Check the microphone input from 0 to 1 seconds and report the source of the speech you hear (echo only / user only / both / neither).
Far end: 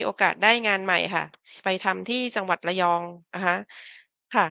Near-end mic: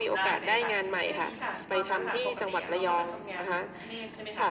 both